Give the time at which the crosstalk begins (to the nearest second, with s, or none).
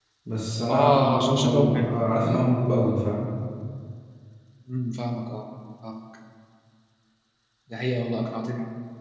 1 s